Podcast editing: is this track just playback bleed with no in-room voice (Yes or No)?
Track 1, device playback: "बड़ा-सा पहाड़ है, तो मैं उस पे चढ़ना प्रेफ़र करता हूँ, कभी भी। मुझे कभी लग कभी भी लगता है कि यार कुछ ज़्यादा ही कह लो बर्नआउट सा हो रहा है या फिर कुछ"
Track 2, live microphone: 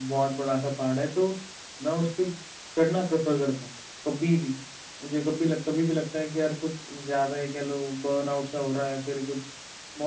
Yes